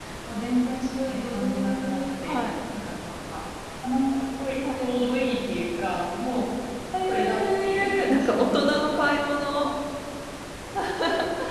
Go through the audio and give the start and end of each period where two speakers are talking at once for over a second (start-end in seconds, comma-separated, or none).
1.1-2.4, 7.1-9.0